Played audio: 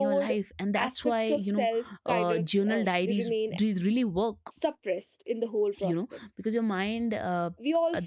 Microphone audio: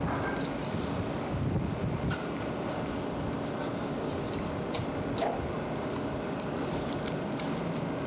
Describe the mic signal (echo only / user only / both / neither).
neither